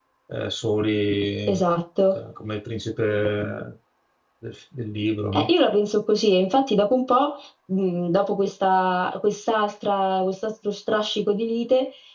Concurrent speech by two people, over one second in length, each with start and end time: none

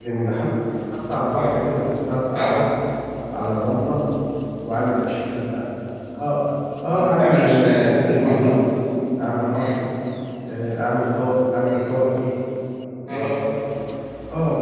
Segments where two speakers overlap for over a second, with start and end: 6.9-8.6

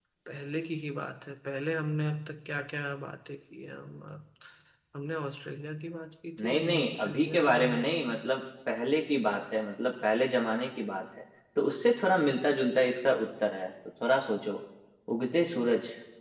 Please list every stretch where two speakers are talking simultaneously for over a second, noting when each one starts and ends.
6.4-8.1

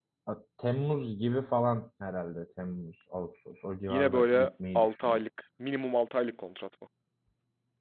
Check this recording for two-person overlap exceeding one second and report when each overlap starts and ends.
3.9-5.2

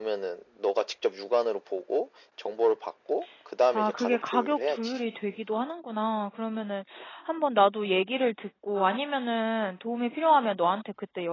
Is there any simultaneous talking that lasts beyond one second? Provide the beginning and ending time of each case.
3.8-5.0

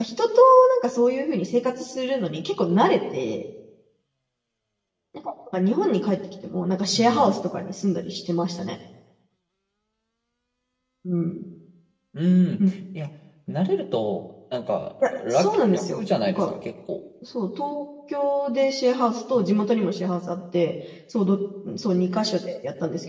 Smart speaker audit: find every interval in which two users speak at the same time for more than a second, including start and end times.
15.0-16.5

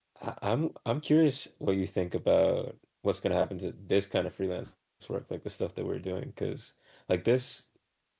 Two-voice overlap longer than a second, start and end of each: none

